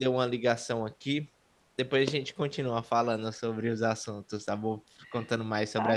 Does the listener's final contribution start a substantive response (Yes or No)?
Yes